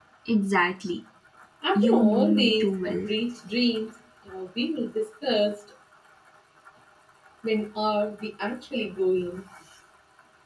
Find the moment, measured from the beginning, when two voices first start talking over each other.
2 s

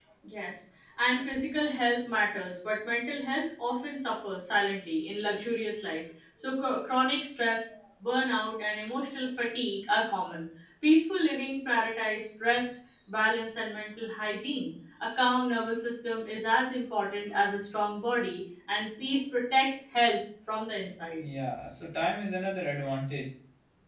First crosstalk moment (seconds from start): none

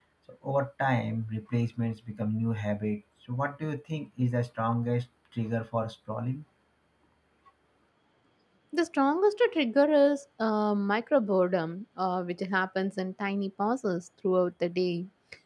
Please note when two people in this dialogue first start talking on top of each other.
none

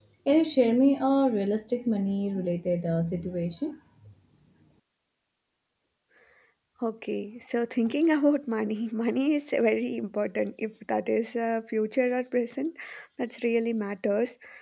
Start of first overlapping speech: none

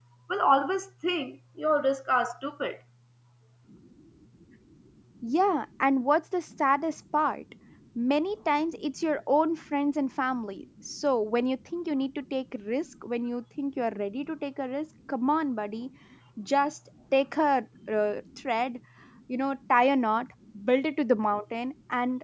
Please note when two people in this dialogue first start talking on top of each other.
none

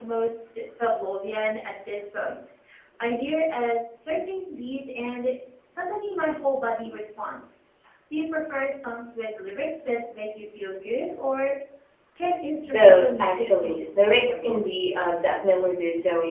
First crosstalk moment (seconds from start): 13 s

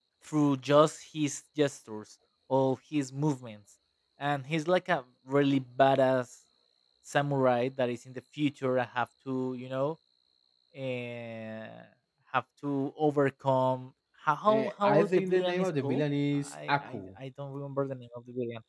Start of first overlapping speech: 14 s

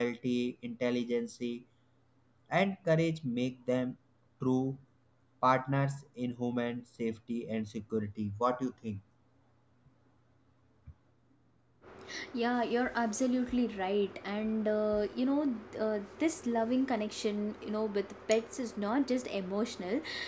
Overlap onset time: none

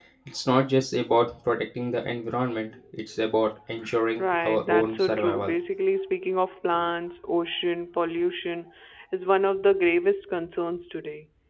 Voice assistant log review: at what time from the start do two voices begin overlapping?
4 s

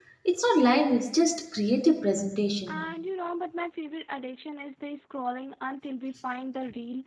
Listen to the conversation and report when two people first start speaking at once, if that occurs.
none

